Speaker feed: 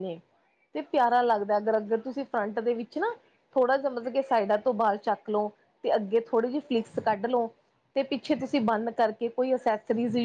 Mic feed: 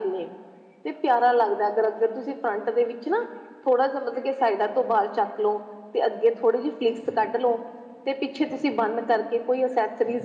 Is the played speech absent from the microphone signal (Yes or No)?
No